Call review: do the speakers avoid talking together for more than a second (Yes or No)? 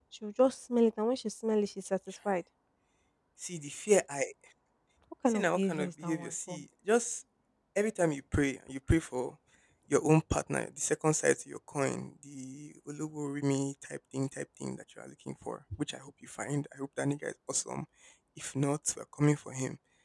No